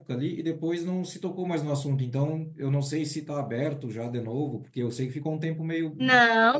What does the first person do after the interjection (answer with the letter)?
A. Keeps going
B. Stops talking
B